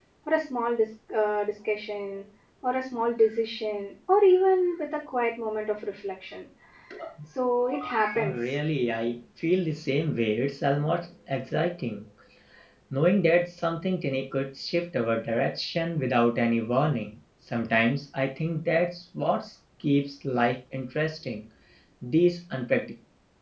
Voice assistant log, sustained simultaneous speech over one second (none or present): none